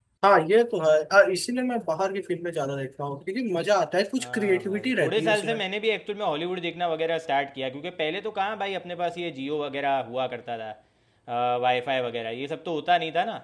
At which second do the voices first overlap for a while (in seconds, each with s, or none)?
4.2 s